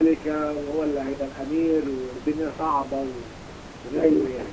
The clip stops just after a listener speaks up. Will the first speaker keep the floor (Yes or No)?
No